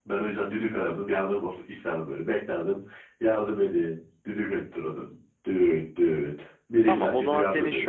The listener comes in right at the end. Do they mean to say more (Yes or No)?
Yes